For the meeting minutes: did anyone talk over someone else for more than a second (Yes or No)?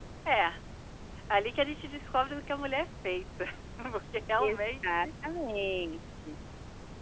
No